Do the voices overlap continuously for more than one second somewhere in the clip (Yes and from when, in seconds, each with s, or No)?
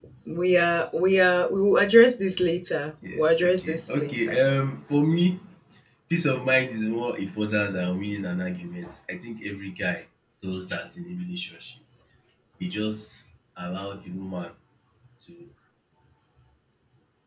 Yes, from 3.0 s